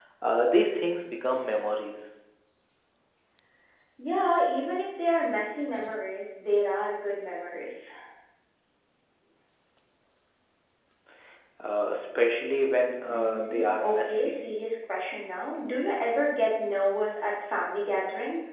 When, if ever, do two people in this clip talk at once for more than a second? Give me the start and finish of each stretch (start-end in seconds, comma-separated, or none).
13.1-14.4